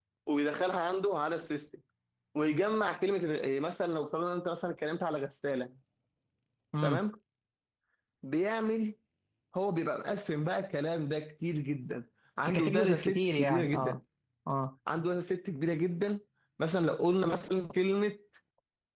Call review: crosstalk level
present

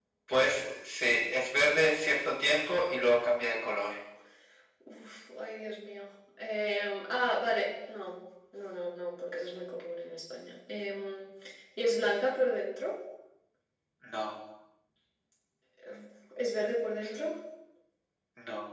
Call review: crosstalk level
none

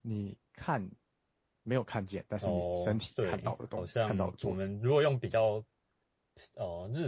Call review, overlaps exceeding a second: present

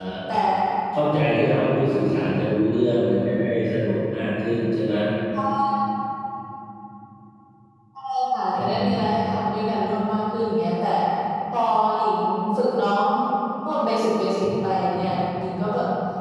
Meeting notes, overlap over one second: none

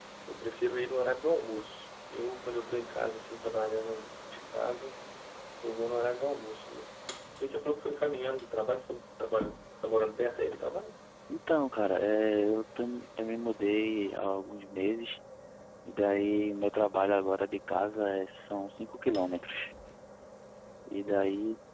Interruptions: none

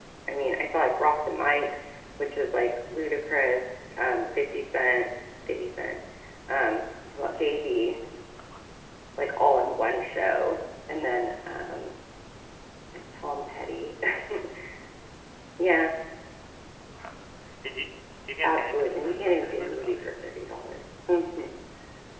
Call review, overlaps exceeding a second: present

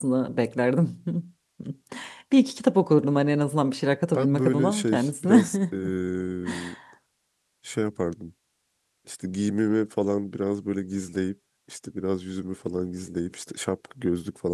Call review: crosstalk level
present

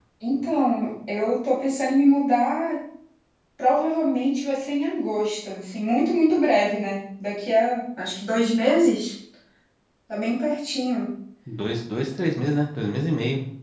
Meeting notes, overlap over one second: none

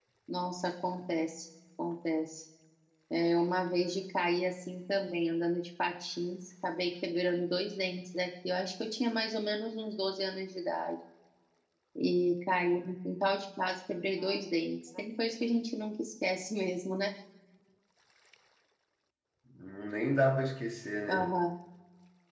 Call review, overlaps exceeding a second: none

